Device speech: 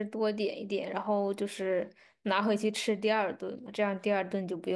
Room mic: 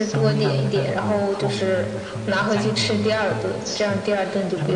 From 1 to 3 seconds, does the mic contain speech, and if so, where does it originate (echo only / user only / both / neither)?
both